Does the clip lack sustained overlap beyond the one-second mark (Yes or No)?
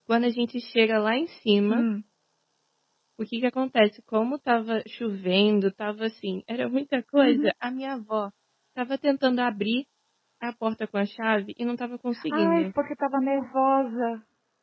Yes